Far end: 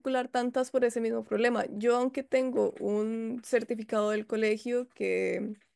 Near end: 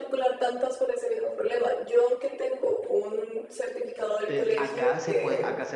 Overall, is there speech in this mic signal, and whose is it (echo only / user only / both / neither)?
both